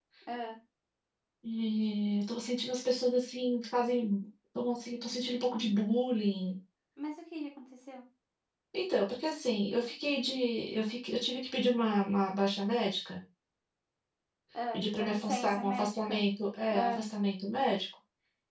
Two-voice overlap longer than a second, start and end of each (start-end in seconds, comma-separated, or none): 14.7-16.2